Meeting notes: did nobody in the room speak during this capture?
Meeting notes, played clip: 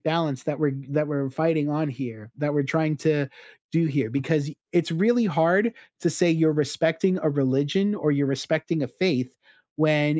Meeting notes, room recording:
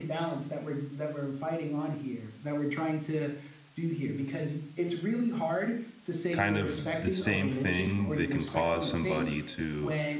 No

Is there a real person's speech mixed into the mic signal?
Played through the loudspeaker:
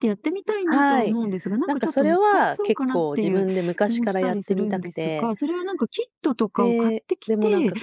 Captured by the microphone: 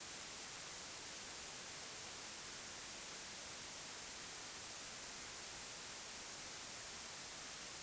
No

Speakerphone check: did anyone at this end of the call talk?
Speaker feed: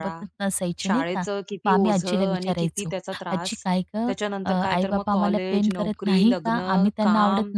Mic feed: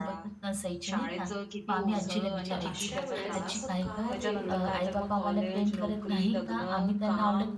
Yes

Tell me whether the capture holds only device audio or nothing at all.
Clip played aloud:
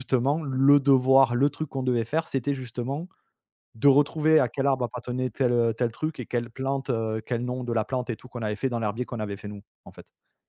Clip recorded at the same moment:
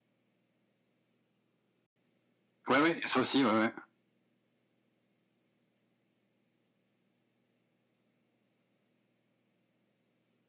No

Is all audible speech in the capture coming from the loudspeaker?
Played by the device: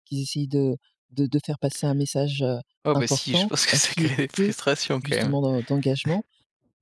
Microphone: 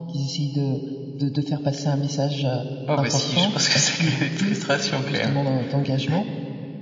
Yes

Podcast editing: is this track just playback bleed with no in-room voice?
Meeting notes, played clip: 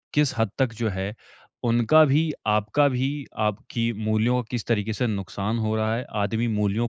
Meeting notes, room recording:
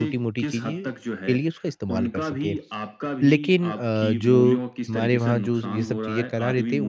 No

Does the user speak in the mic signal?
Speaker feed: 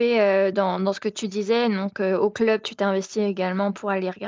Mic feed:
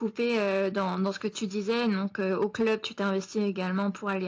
No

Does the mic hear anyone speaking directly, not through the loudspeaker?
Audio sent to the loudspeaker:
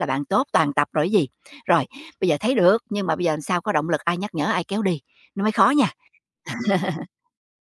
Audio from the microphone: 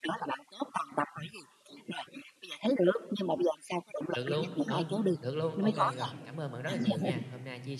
Yes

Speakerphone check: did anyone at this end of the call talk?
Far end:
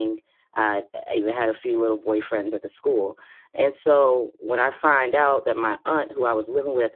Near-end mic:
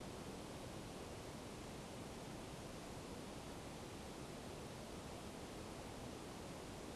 No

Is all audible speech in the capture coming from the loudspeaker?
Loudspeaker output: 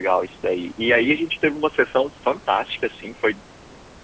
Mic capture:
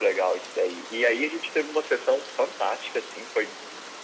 Yes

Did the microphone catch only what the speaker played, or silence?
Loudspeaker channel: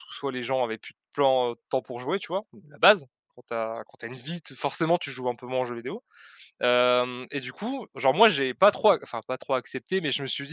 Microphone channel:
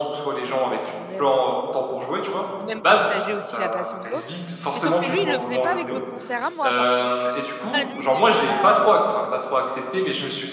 No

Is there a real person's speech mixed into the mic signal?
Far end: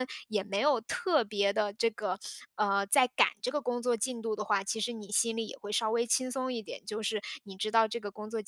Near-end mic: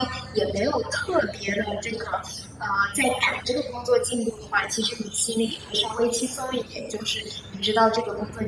No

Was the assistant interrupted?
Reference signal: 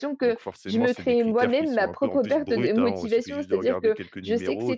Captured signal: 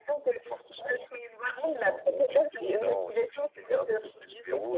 No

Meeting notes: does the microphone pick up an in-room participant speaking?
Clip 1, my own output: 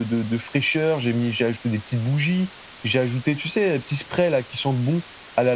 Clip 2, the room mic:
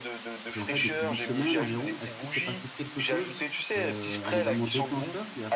Yes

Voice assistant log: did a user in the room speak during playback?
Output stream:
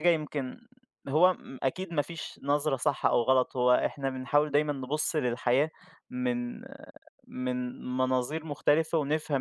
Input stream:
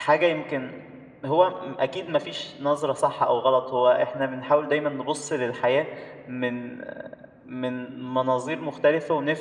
No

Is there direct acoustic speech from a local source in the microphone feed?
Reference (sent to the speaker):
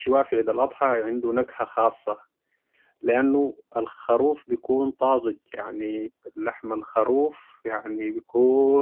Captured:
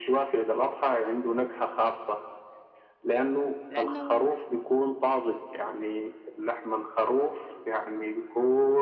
Yes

